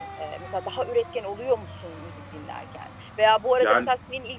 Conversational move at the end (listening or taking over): listening